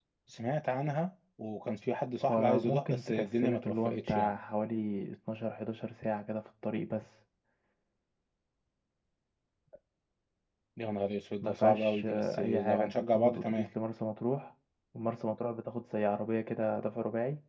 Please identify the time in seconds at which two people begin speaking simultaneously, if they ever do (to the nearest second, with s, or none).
2 s